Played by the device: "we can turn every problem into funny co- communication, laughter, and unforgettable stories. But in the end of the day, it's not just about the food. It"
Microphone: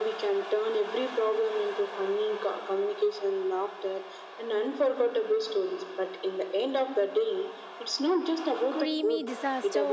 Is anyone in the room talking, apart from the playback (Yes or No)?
Yes